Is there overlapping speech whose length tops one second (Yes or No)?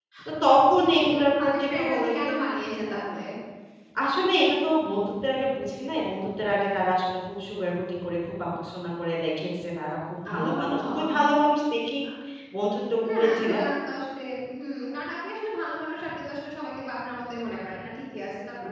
Yes